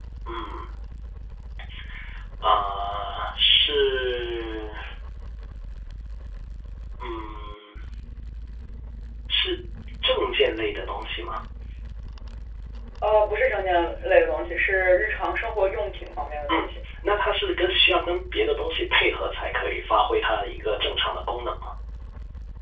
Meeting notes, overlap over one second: none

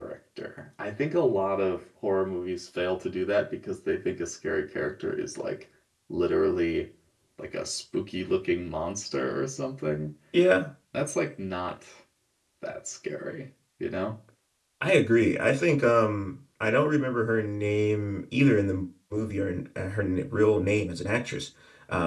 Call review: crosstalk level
none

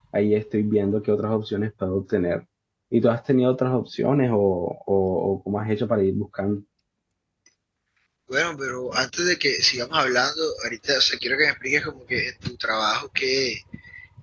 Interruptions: none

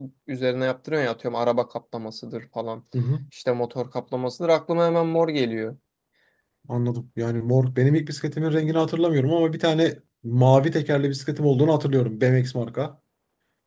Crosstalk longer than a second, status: none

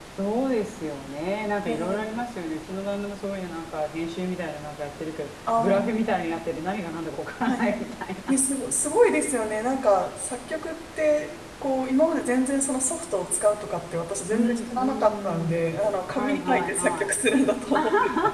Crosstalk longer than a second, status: present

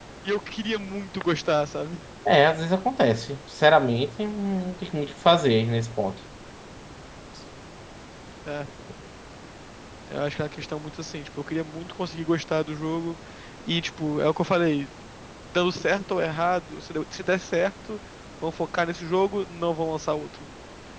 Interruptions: none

